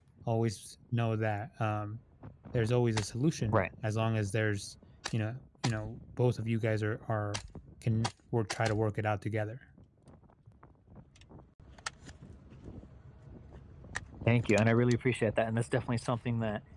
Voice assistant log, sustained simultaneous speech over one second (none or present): none